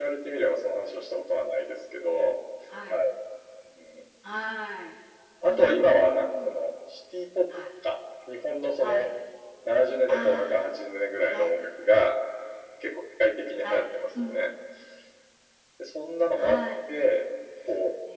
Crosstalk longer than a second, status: present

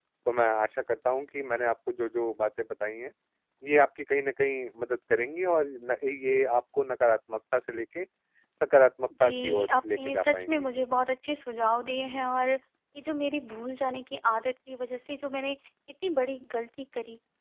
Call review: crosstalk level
present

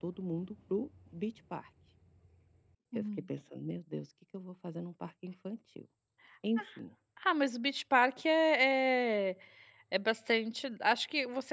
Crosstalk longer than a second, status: none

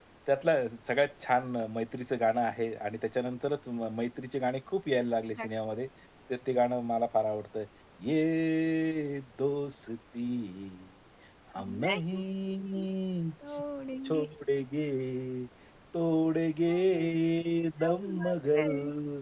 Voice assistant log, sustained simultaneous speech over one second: present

